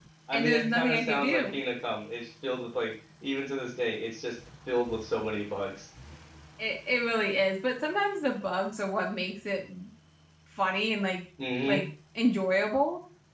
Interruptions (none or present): present